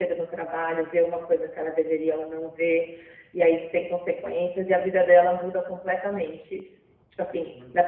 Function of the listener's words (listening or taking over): listening